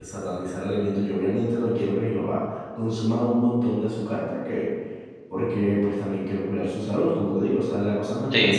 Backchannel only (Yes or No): Yes